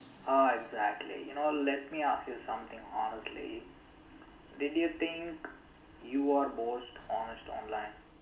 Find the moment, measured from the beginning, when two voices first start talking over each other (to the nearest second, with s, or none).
none